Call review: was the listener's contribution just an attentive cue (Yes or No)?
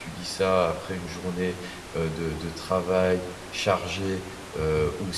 Yes